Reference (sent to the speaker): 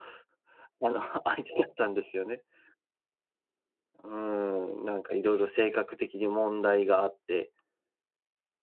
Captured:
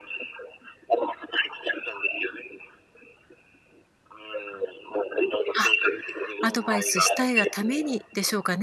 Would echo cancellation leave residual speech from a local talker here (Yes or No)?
Yes